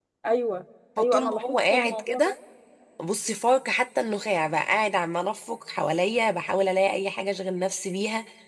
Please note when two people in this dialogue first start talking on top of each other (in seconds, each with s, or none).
1.0 s